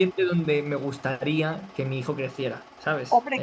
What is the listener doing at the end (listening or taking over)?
taking over